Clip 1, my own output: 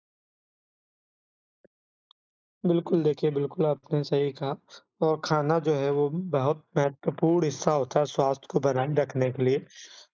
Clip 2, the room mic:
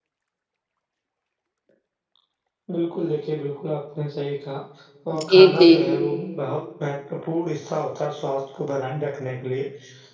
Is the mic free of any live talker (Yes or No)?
No